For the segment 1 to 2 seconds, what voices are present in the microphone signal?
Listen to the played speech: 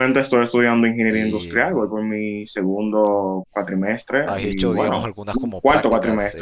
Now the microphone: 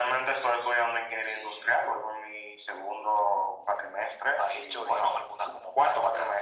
echo only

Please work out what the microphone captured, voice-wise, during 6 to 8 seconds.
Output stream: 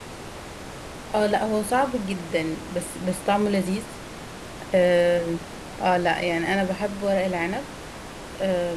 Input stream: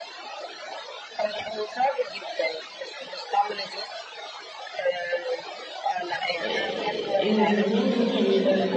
both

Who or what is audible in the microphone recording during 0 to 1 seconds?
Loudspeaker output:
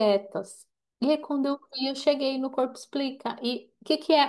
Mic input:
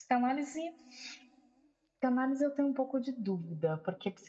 user only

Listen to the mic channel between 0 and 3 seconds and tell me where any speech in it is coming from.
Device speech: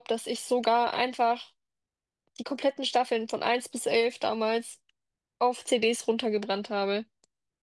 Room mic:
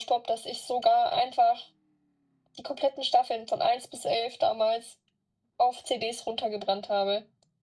echo only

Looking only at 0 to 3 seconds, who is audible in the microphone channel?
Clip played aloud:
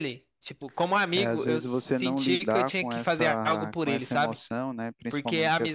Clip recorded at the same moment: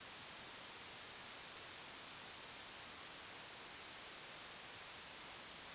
neither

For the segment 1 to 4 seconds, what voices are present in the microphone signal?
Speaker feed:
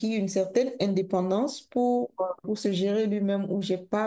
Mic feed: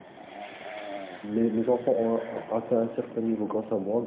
user only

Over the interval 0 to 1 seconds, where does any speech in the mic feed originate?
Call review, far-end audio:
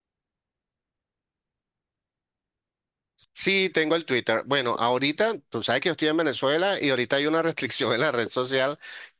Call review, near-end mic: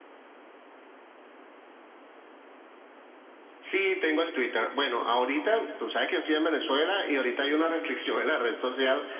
neither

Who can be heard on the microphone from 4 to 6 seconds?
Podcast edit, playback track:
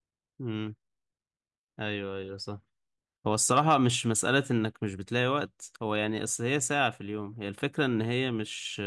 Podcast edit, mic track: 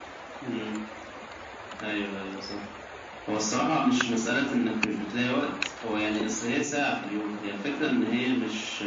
echo only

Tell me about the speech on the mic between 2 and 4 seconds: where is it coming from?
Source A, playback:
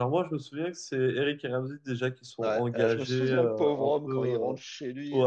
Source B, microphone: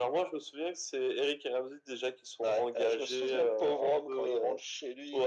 echo only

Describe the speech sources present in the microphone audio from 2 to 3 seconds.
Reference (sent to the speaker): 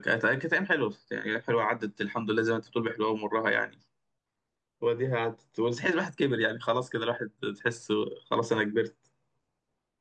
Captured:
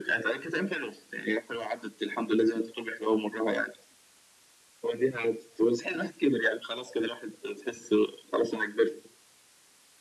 echo only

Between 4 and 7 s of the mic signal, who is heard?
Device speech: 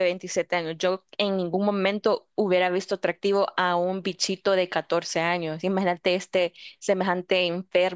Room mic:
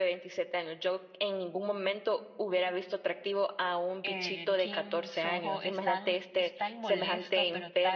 both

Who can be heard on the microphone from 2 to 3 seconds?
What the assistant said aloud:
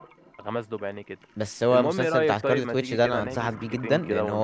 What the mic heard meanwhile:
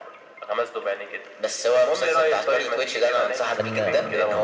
echo only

